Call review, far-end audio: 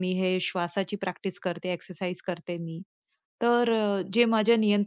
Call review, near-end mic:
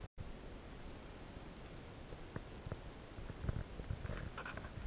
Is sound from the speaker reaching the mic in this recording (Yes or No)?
No